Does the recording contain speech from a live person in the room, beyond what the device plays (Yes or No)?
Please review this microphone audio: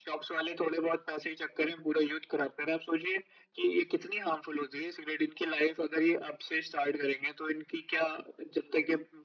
No